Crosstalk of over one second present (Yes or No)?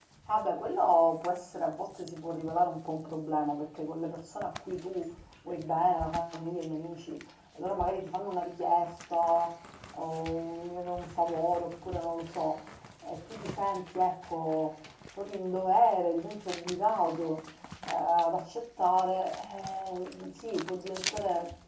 No